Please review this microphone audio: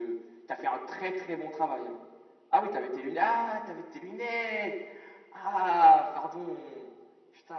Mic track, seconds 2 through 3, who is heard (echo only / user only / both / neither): echo only